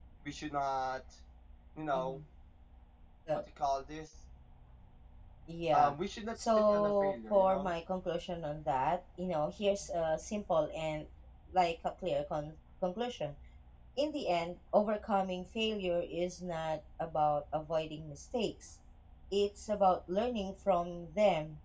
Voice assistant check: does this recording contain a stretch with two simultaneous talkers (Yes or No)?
Yes